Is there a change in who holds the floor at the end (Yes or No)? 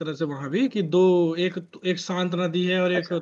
No